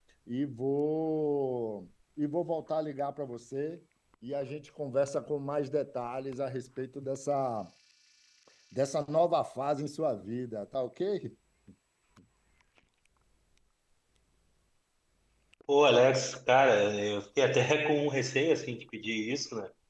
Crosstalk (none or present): none